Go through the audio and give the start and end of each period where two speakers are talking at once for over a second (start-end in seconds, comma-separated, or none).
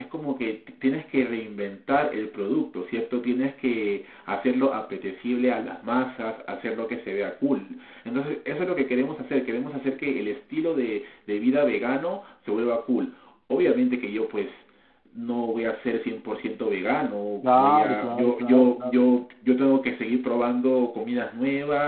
17.5-19.0